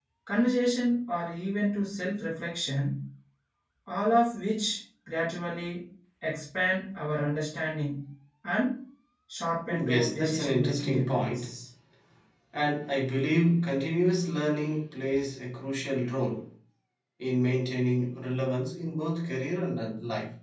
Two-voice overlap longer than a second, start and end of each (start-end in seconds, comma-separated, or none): 9.7-11.5